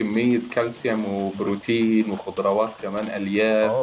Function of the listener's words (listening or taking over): taking over